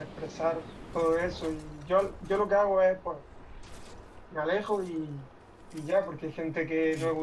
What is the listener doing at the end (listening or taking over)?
listening